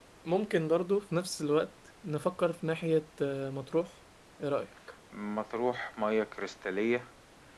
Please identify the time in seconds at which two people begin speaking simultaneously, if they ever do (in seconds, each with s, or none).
none